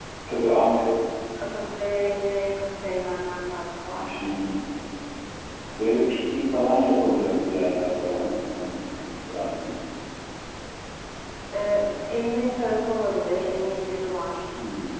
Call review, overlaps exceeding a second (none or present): none